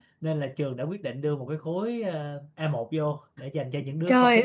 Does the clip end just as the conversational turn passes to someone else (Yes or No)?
Yes